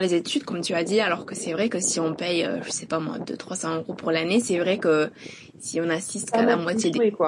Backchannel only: No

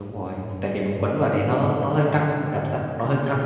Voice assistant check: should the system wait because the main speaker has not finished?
No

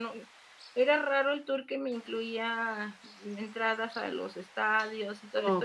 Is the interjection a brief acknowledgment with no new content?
Yes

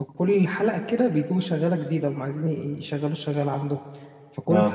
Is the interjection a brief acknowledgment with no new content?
Yes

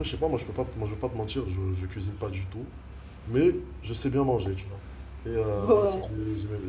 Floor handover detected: No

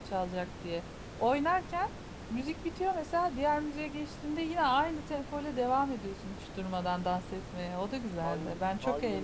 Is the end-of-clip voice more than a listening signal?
Yes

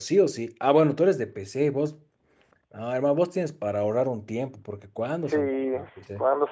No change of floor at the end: No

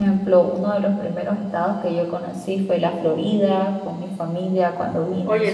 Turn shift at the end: Yes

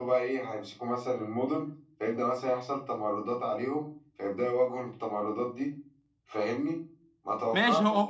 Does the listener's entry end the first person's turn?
Yes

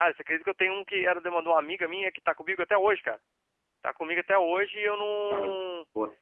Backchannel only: No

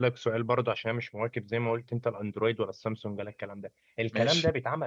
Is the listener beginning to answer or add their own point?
No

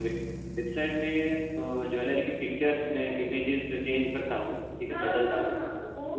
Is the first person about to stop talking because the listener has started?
Yes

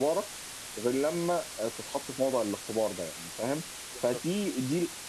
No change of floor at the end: Yes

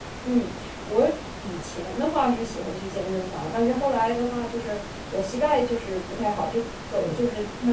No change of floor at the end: Yes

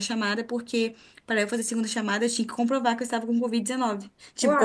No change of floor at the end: Yes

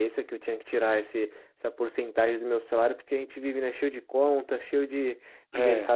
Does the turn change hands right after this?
No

